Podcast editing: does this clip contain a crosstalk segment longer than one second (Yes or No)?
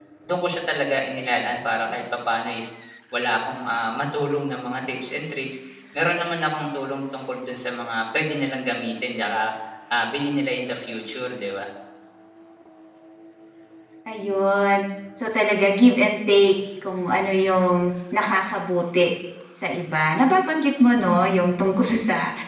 No